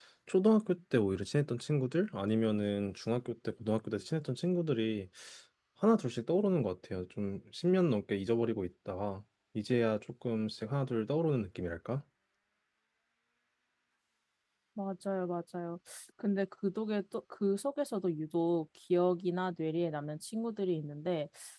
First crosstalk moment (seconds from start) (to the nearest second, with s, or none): none